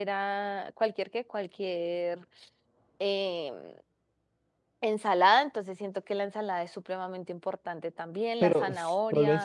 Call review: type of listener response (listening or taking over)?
taking over